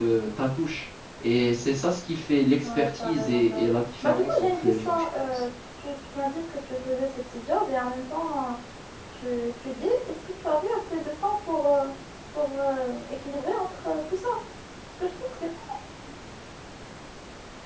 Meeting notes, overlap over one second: present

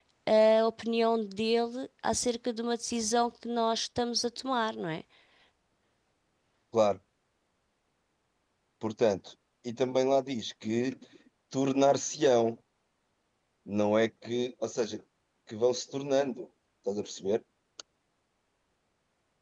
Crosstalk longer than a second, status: none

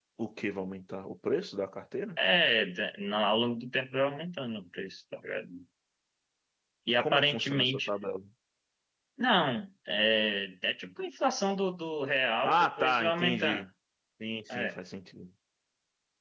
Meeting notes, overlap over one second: present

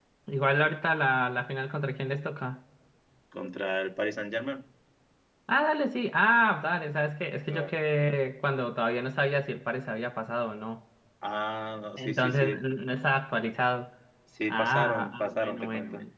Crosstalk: present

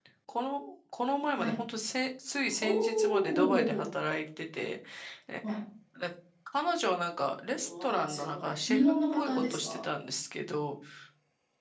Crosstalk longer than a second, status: present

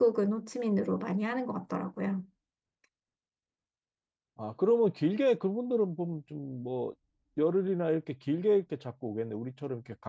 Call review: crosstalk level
none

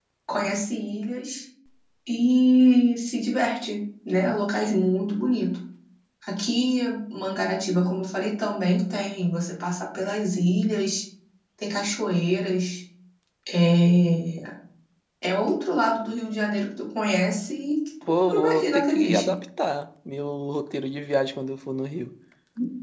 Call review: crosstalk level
present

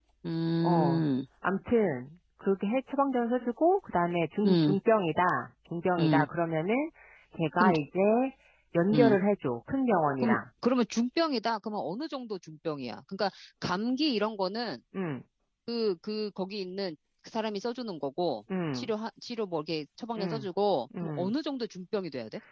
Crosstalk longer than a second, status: none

